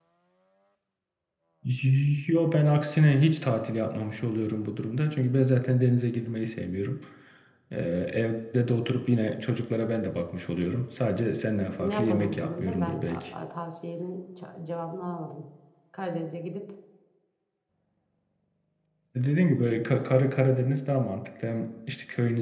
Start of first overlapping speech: 11.8 s

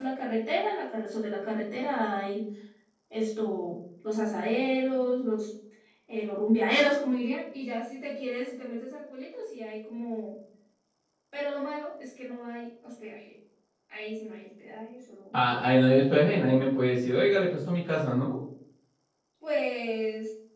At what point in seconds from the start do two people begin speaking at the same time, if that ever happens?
none

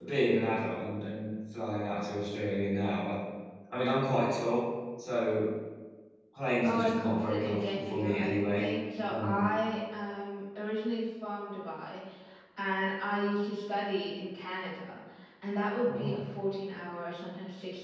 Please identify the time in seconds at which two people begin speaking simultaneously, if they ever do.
6.6 s

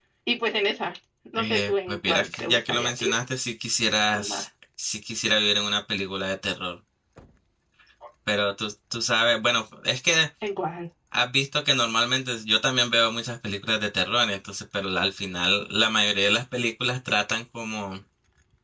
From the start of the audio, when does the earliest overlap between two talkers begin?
1.4 s

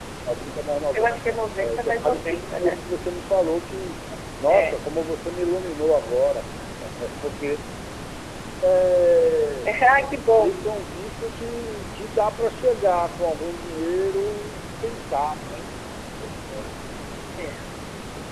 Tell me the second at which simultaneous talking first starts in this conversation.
0.9 s

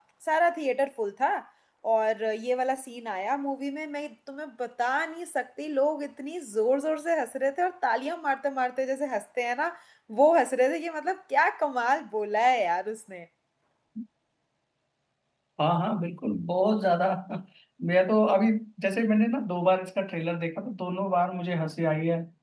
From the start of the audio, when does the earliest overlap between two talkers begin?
none

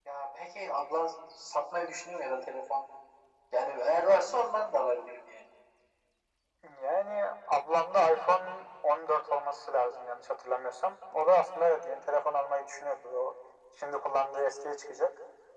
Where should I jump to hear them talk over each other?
none

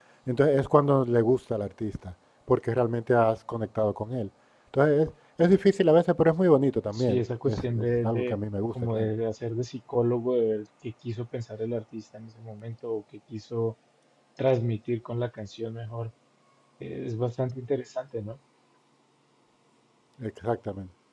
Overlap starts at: 6.9 s

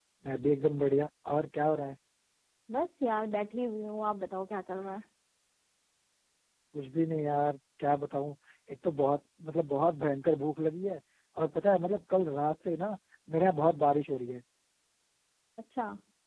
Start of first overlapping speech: none

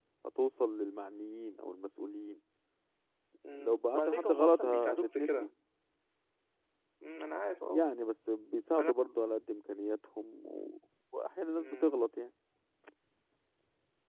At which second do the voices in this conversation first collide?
3.5 s

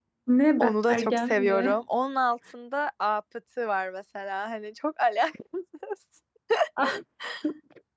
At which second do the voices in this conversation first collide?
0.6 s

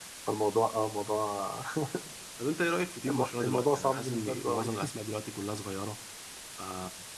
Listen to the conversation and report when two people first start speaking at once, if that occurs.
3.1 s

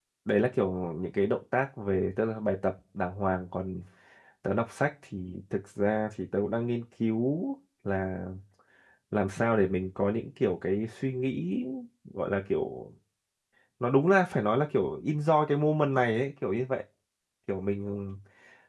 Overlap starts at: none

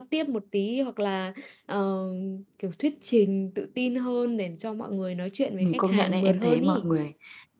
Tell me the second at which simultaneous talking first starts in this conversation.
5.6 s

